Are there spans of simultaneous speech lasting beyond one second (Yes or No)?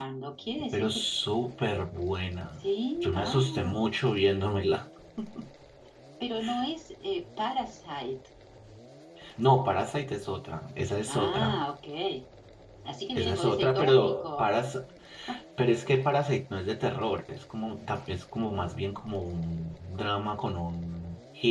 Yes